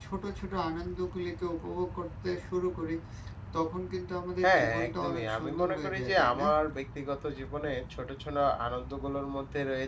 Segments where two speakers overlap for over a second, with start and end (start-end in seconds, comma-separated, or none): 4.4-6.5